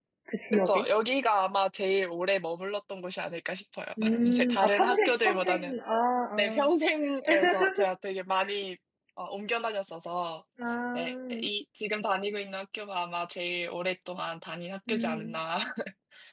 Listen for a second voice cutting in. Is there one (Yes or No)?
Yes